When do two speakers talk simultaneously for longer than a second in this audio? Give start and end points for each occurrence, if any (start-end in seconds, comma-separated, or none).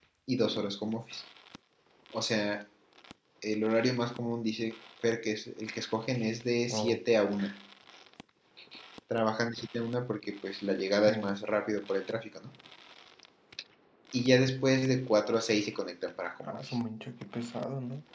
none